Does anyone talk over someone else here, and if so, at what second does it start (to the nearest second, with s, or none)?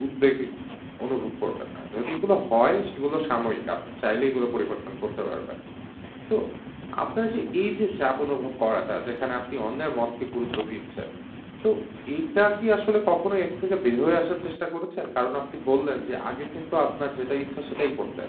none